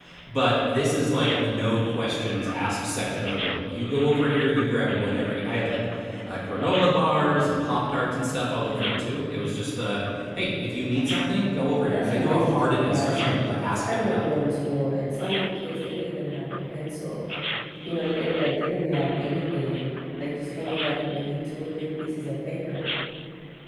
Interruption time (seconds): 12 s

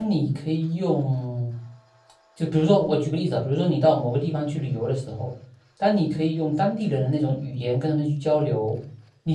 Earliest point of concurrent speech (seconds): none

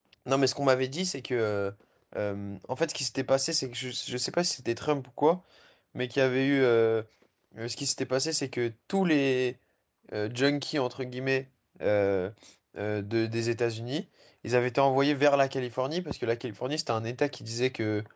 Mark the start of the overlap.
none

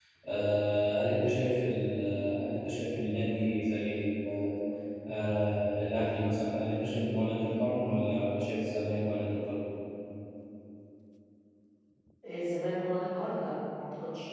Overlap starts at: none

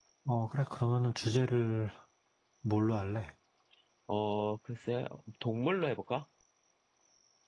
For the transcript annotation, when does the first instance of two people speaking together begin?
none

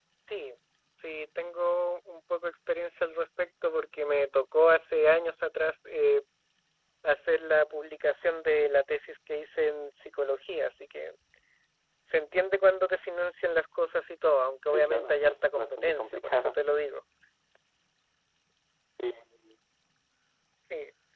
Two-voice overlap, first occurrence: 15 s

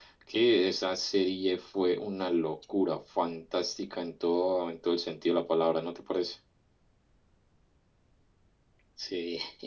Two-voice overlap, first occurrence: none

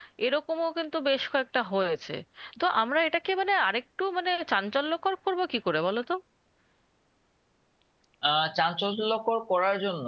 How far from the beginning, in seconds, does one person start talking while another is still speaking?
none

